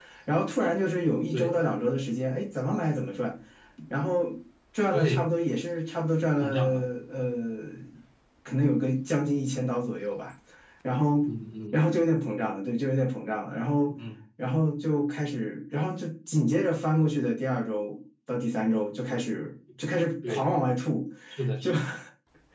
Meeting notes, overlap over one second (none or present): none